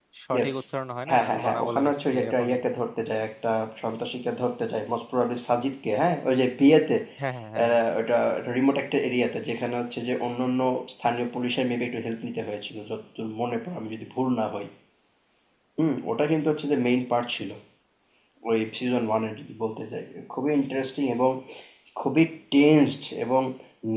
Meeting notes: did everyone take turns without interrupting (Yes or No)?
No